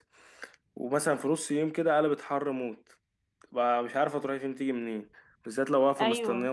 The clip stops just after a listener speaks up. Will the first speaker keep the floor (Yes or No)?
Yes